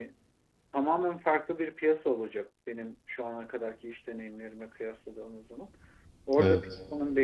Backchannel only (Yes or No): Yes